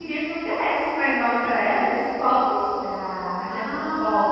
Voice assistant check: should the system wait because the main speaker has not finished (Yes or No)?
No